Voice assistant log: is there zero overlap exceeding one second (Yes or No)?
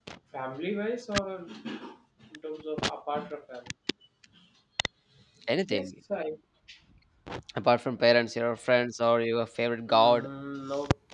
Yes